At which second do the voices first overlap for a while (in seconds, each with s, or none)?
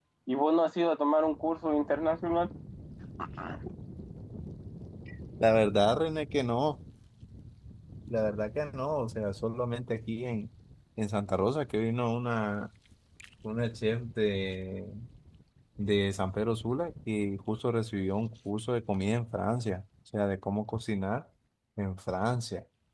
none